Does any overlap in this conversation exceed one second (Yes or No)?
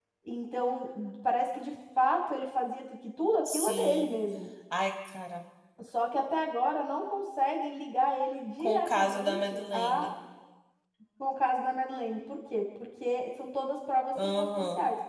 Yes